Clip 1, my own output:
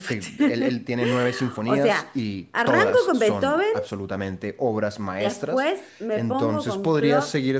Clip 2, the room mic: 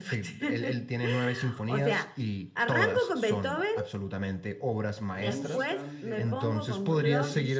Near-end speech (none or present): present